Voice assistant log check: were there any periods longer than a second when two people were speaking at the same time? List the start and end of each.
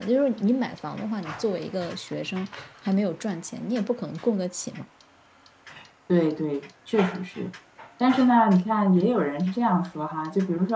none

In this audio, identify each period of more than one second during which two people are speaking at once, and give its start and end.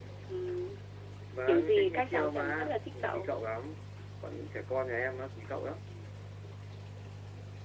1.5-3.3

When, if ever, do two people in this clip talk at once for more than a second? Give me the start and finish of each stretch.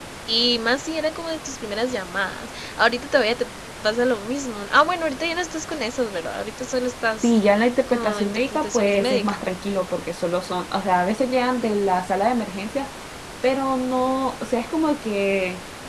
7.9-9.3

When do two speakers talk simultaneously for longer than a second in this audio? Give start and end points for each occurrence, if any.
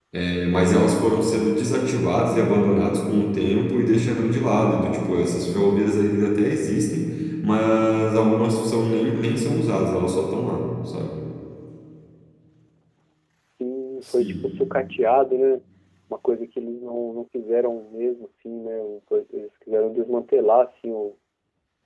none

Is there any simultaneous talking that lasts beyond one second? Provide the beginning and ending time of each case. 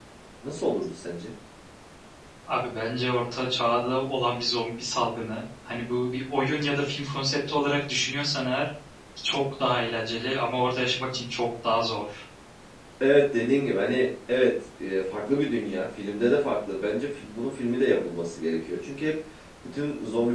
none

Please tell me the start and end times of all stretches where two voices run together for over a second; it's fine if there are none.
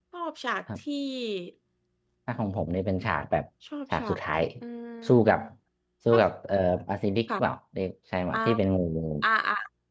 none

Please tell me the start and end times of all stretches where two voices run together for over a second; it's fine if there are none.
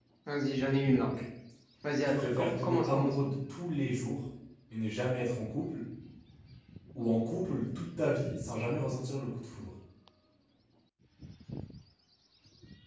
2.1-3.4

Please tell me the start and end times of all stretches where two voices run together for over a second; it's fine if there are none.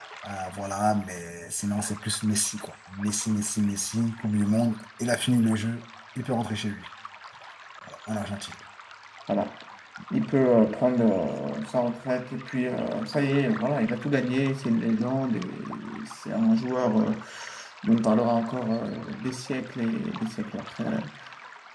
none

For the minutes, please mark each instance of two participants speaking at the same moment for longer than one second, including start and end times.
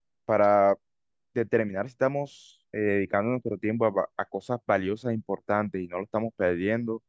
none

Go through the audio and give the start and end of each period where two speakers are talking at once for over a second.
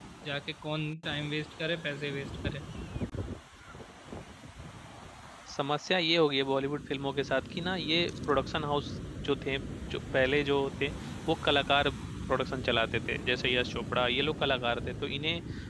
none

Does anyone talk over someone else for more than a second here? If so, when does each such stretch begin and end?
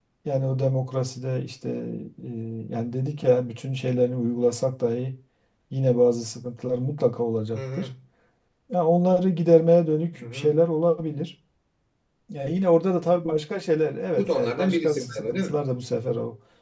14.2-15.6

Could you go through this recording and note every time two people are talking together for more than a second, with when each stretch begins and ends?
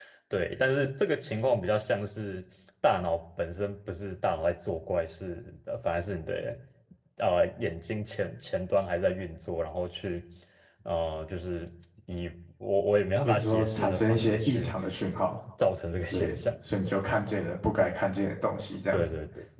13.2-14.7

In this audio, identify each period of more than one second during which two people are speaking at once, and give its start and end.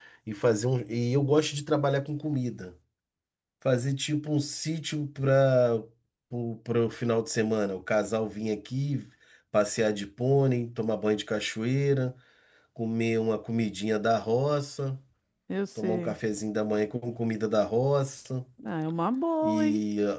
none

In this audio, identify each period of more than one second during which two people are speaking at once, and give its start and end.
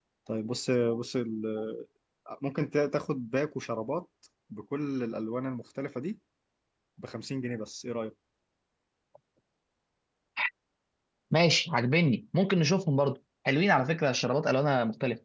none

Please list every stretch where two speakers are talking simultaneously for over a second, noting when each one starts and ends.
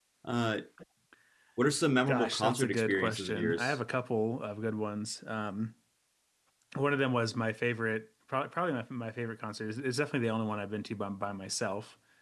2.1-3.8

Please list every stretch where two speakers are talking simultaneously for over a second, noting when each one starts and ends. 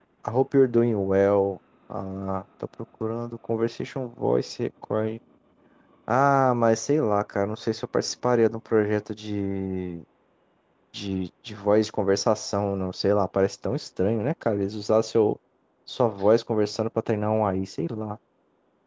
none

